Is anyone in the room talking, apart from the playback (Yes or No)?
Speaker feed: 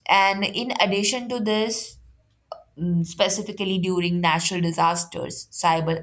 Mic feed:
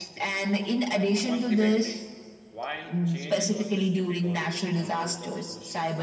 Yes